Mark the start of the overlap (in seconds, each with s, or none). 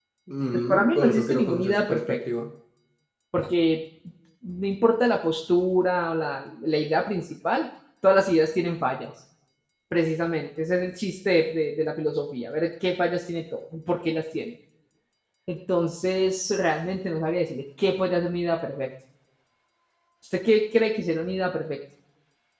0.5 s